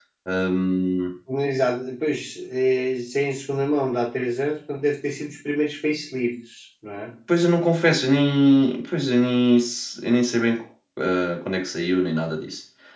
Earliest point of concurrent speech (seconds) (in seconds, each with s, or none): none